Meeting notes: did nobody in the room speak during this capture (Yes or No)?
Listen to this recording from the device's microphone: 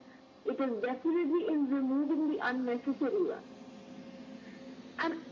Yes